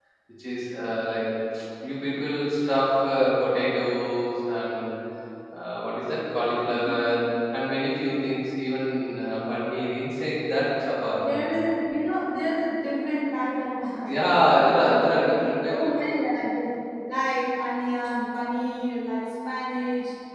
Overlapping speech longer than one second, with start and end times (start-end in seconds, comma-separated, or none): 14.8-16.0